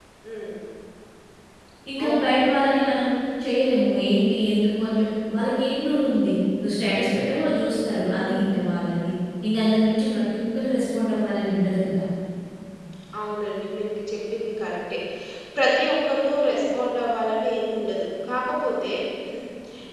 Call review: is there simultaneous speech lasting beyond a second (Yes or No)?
No